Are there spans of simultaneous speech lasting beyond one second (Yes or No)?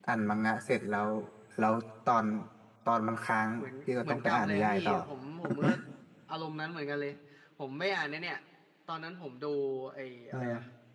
Yes